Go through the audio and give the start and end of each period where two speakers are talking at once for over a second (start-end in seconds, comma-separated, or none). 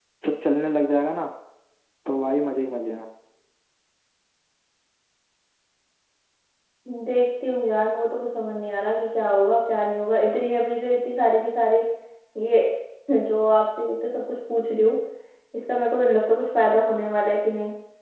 none